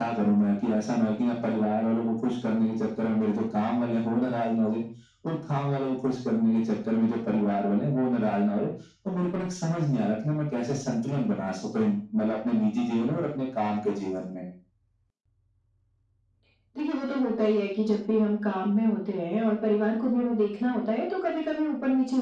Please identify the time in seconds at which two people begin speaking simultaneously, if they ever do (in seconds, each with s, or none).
none